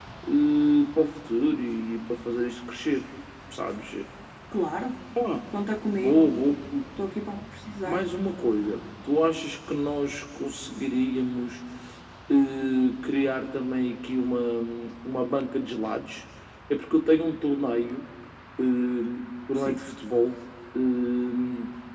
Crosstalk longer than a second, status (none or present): none